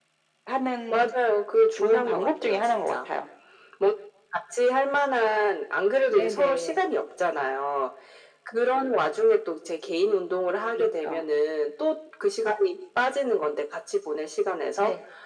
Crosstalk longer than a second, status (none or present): present